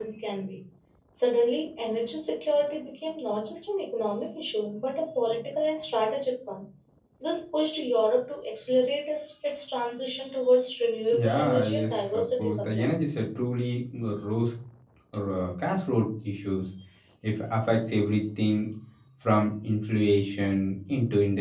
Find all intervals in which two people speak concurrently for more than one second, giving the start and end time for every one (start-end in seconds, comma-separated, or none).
11.1-12.9